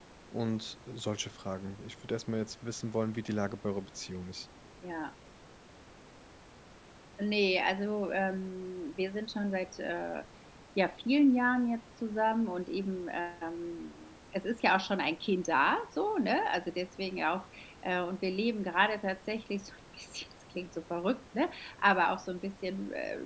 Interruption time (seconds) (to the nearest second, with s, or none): none